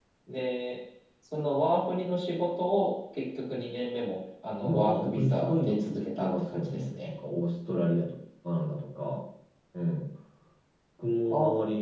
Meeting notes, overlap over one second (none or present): present